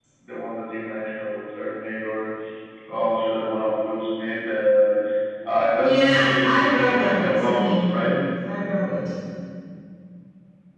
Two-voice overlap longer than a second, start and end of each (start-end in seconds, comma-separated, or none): 5.7-7.8